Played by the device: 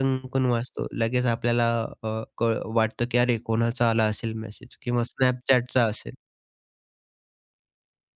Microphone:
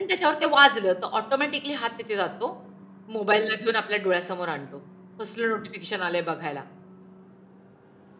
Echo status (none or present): none